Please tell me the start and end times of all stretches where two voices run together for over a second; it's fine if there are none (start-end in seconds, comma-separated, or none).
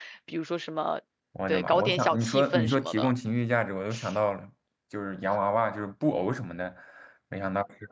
1.5-3.1